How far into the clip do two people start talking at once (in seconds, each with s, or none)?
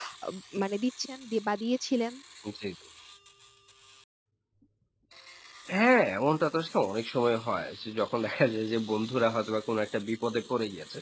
none